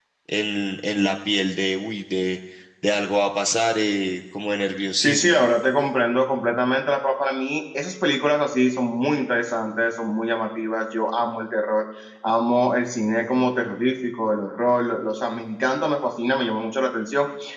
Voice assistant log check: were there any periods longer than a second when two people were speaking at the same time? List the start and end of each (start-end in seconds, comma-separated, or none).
none